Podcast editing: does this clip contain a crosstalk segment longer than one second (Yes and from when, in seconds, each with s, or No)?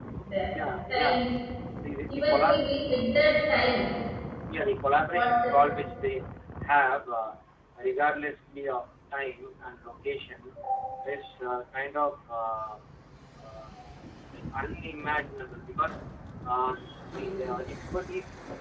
No